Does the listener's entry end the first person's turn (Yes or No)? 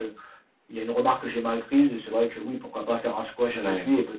No